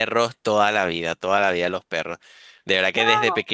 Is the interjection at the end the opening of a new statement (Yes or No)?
No